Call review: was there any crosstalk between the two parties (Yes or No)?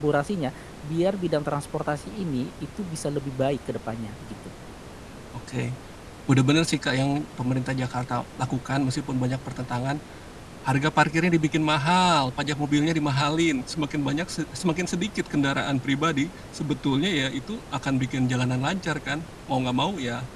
No